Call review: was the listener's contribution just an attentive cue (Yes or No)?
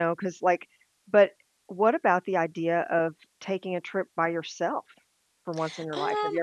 No